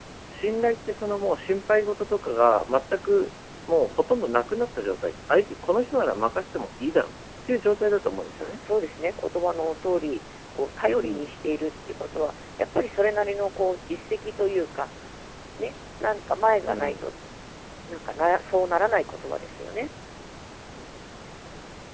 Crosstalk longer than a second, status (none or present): none